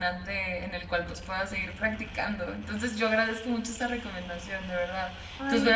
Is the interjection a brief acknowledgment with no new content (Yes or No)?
Yes